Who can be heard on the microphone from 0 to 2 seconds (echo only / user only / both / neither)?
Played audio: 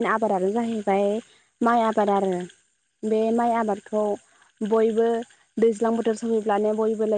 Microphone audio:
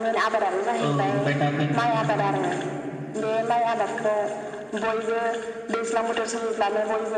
both